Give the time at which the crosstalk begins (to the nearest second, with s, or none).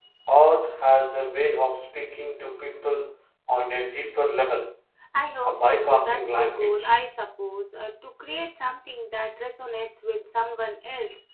5 s